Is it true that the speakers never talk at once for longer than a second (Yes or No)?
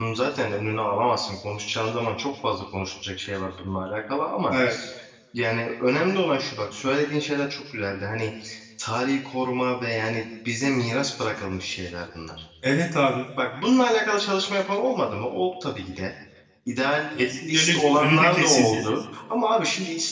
No